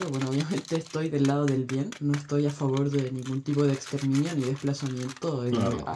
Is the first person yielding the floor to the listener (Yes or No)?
No